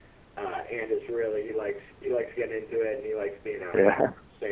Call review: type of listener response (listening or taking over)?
listening